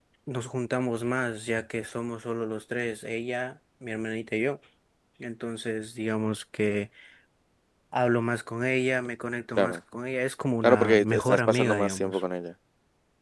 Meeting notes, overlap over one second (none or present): present